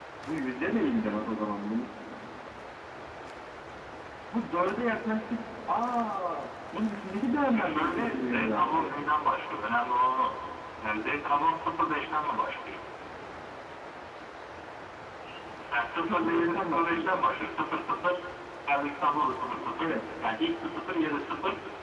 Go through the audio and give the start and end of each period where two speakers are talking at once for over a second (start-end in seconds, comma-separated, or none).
7.5-9.0, 15.7-17.2